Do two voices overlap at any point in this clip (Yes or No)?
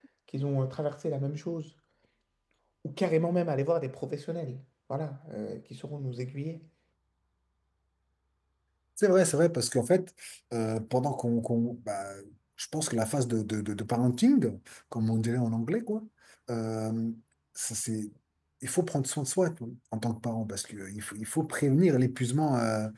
No